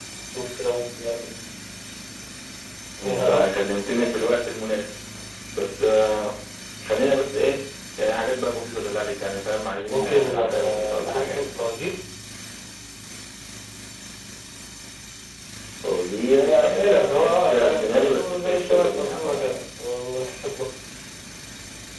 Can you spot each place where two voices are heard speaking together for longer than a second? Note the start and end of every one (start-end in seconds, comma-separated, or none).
9.9-11.4, 16.4-19.6